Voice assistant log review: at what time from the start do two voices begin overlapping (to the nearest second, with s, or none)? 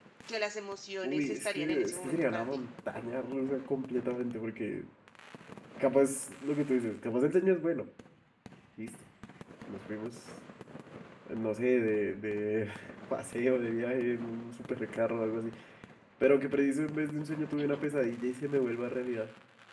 1 s